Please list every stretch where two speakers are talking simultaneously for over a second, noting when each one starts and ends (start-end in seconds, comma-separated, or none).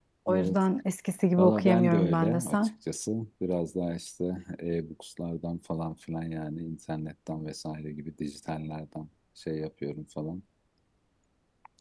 1.4-2.6